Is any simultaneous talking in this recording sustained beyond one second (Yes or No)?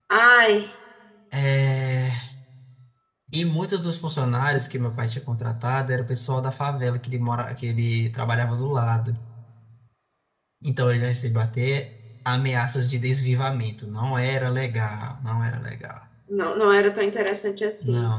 No